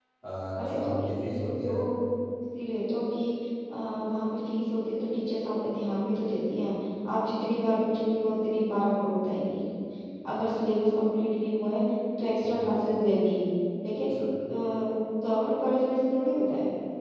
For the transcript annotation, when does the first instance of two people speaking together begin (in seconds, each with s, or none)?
0.6 s